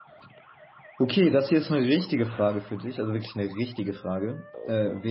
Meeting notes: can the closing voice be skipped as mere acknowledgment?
Yes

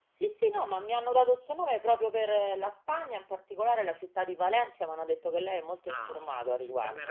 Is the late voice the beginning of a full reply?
Yes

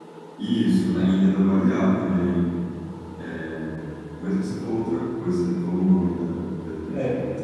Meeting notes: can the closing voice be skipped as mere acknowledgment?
No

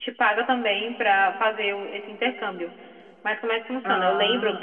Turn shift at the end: No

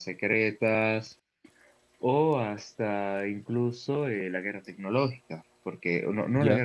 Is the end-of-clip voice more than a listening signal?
No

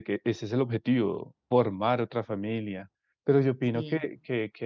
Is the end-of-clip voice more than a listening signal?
No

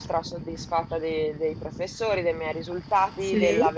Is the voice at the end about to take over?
No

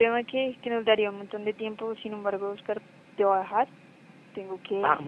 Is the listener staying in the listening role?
Yes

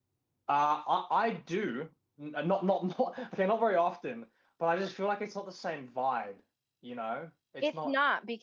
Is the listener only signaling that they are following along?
No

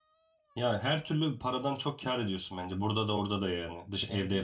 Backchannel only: No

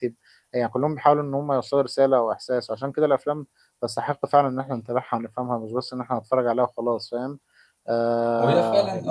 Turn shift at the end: Yes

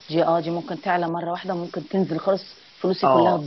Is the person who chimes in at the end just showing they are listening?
No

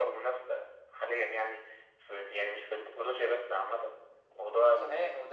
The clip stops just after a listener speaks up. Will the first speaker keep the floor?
No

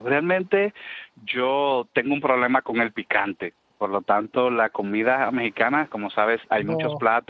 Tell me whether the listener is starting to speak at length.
No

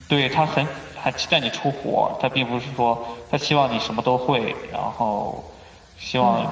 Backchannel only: Yes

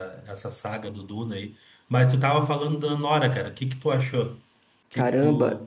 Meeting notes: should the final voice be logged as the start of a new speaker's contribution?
Yes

